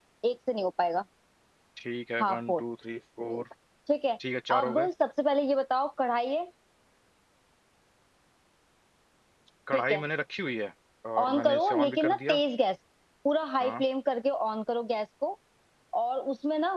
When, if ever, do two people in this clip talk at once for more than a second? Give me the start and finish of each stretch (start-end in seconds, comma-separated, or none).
11.2-12.4